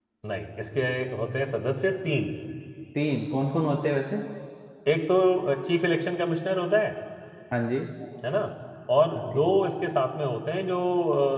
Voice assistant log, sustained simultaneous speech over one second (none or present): none